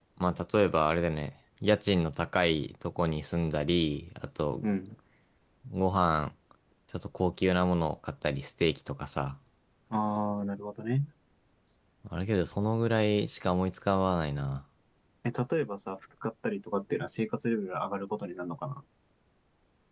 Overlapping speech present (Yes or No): No